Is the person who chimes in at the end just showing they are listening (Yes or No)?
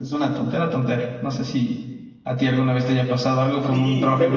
No